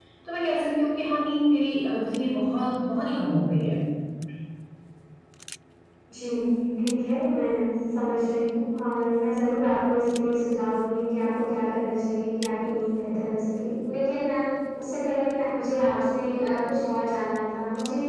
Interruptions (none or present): none